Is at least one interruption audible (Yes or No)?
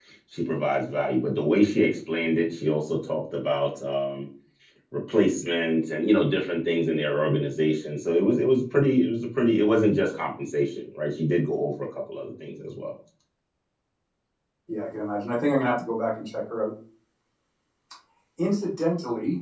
No